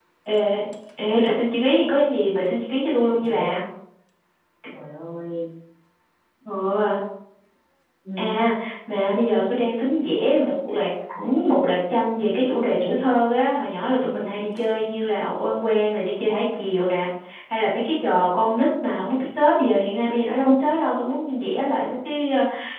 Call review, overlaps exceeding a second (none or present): none